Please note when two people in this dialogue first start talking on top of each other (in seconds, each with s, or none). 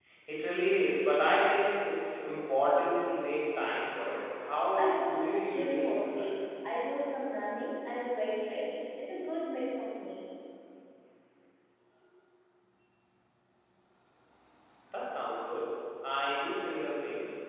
4.7 s